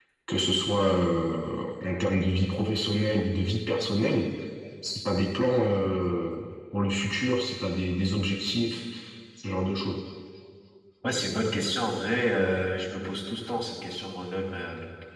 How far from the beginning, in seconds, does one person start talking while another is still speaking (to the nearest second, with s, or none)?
none